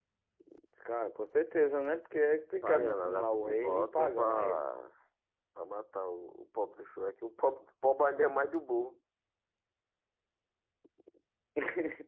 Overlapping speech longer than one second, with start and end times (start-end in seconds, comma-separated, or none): 2.6-4.6